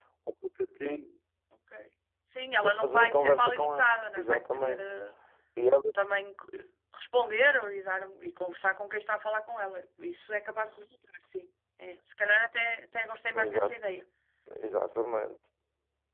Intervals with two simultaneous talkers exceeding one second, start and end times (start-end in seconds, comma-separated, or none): 2.6-4.9